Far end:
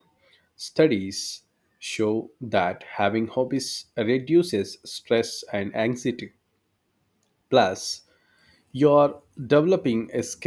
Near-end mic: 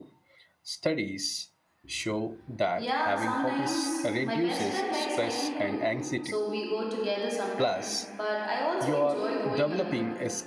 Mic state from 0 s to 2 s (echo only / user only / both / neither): echo only